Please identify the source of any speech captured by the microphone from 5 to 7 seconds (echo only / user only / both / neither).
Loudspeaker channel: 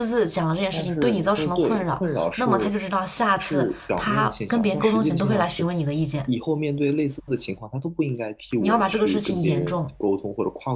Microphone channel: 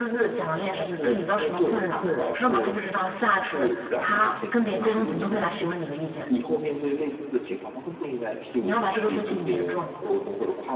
echo only